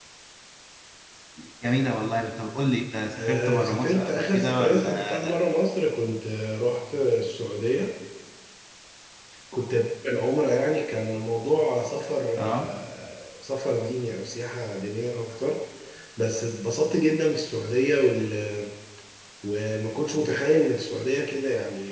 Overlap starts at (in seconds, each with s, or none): 3.2 s